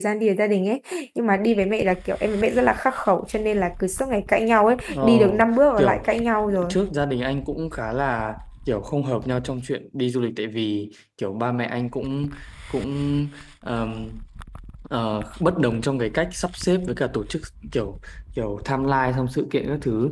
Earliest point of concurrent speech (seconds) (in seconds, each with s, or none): 4.9 s